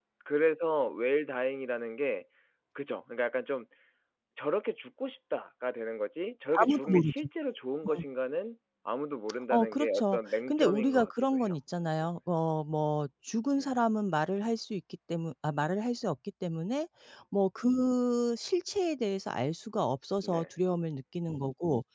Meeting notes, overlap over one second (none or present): present